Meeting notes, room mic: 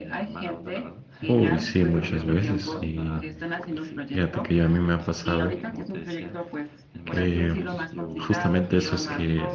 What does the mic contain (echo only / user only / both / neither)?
both